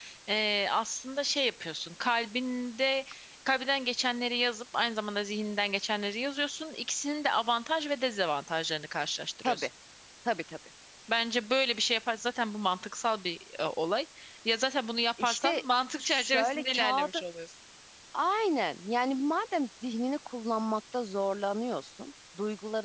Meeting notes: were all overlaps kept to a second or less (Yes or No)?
No